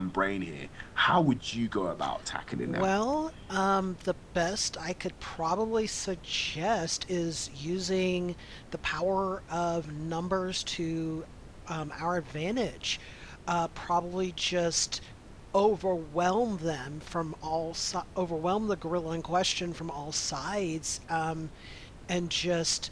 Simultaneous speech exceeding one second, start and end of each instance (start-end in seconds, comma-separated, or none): none